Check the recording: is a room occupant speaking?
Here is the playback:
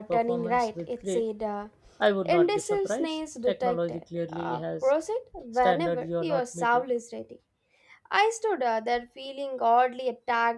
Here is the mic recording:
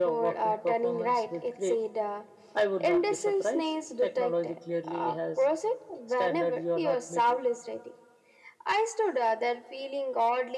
No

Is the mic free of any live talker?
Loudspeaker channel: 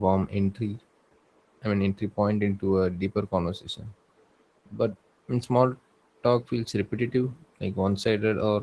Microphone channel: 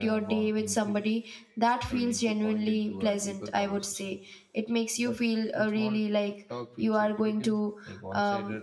No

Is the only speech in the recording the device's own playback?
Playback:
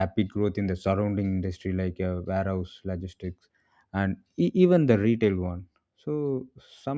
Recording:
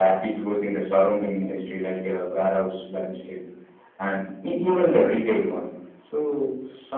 Yes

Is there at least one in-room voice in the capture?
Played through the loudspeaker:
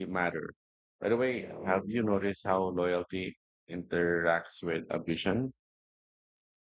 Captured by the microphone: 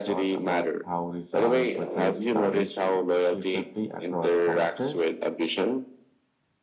Yes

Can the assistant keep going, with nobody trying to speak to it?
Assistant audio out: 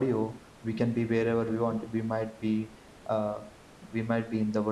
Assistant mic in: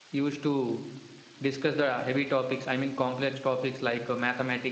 No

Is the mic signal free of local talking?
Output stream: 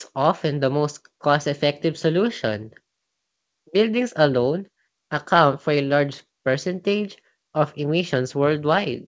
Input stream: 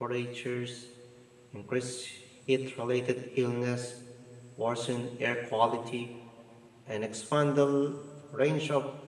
No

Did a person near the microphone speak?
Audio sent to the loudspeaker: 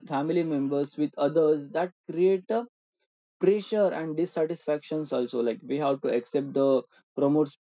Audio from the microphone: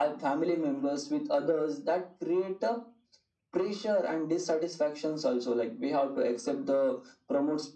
No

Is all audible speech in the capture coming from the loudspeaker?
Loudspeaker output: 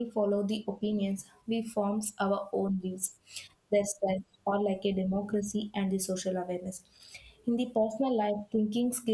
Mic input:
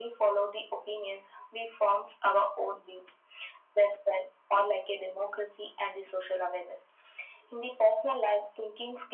Yes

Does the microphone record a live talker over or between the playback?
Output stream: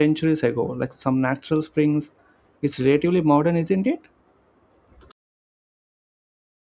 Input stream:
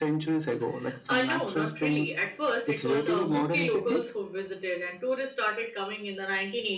Yes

